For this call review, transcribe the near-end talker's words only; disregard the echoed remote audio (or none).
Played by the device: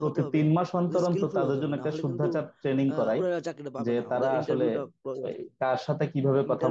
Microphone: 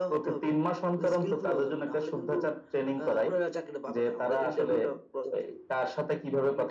none